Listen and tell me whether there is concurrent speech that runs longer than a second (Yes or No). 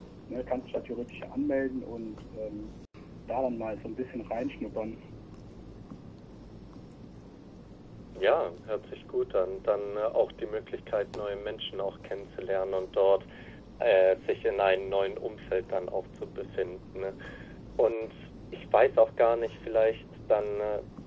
No